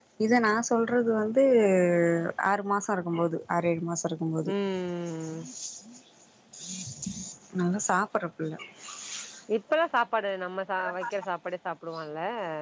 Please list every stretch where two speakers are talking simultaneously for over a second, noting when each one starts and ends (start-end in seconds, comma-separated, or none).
none